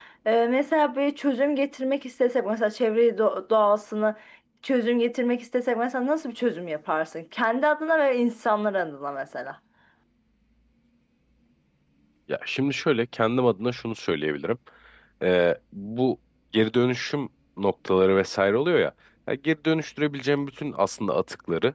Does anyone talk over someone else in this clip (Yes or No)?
No